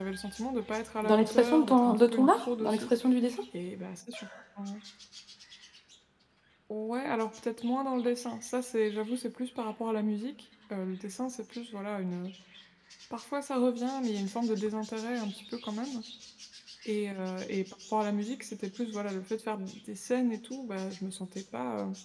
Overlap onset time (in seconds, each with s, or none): 1.0 s